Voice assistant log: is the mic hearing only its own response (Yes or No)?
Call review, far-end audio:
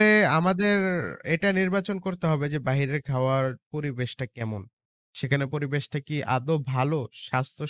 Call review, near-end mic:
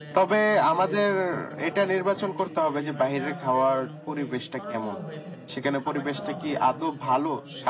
No